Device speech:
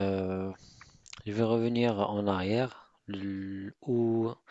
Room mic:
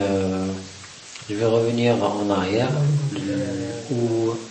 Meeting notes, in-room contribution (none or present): present